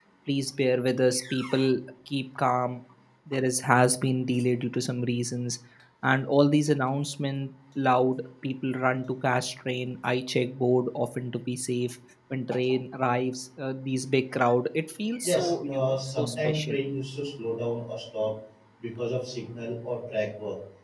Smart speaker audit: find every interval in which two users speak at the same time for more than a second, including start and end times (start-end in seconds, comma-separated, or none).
15.2-16.8